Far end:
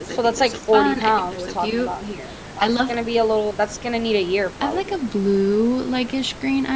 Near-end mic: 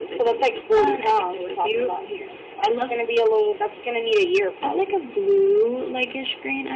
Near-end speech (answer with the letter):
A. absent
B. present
A